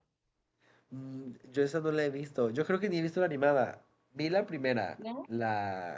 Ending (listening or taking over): listening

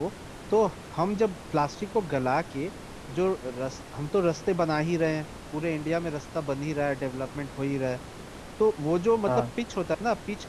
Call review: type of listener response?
listening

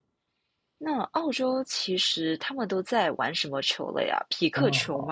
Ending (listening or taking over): taking over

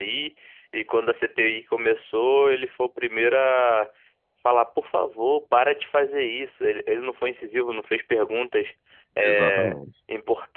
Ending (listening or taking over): listening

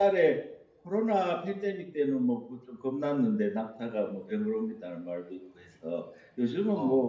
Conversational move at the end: listening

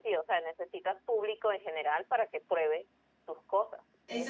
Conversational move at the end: taking over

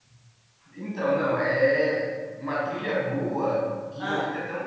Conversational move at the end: listening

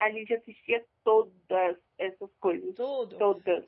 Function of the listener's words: taking over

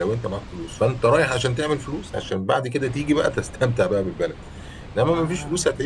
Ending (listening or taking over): listening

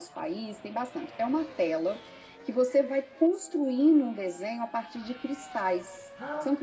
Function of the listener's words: listening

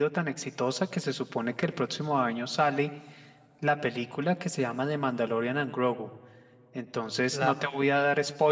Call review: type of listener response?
listening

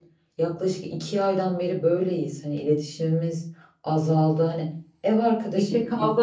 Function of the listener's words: taking over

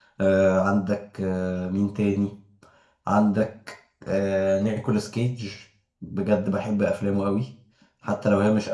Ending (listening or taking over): listening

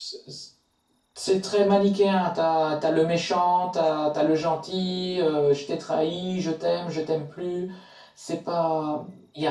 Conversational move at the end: listening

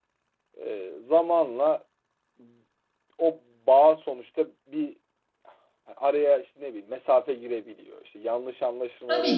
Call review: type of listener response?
taking over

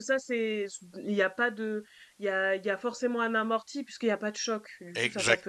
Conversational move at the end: taking over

